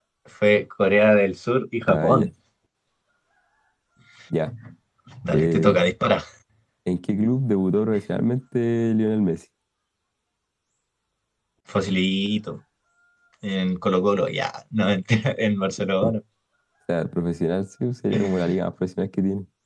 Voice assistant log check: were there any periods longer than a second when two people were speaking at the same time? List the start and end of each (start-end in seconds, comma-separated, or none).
none